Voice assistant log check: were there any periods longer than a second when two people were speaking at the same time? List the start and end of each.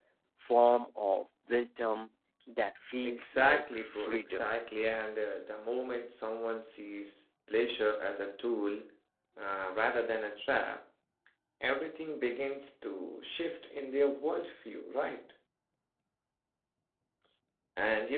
3.0-4.5

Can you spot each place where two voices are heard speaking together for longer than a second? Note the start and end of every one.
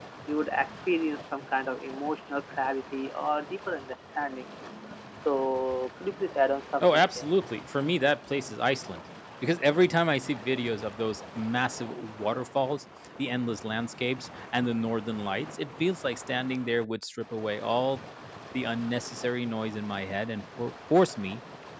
none

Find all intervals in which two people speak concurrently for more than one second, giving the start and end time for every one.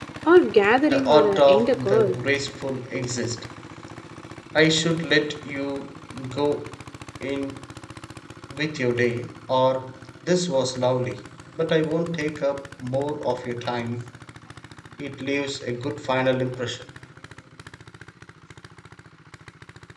0.9-2.2

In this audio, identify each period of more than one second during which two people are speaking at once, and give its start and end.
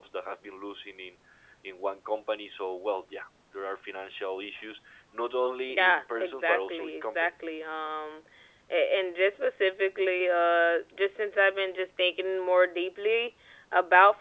5.7-7.3

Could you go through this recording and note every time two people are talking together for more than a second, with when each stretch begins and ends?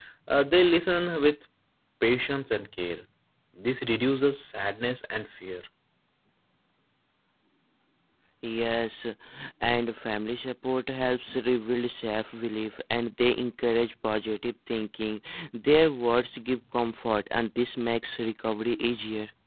none

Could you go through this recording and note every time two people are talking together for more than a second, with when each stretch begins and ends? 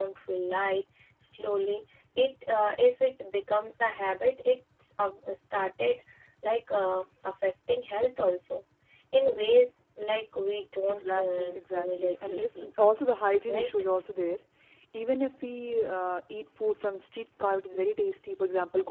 11.0-12.7

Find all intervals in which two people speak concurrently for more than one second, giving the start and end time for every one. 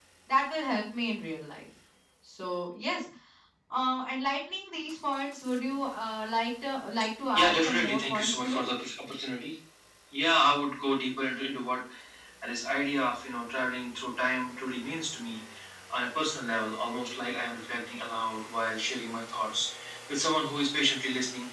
7.4-8.6

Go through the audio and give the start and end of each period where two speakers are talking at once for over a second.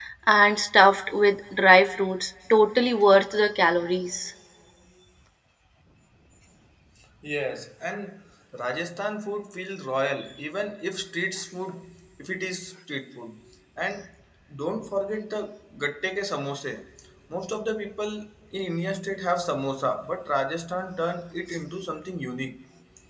none

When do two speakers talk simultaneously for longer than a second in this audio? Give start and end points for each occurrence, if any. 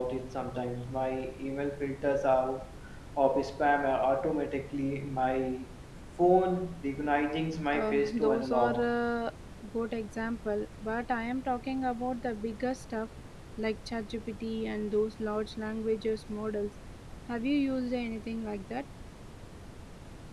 7.7-8.9

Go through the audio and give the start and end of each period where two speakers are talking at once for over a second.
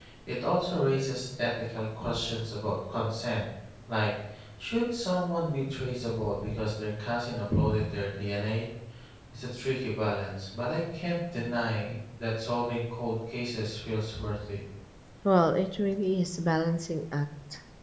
none

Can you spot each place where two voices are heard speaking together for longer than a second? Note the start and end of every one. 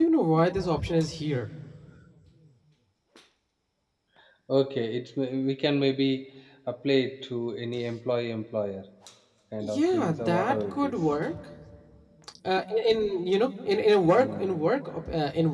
9.6-10.9

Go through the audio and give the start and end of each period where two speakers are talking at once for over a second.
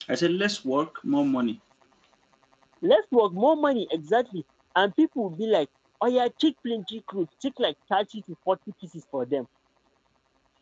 none

